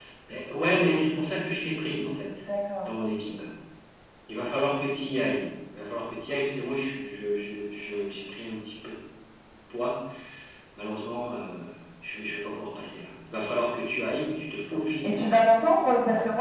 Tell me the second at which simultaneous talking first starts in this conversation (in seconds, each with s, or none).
none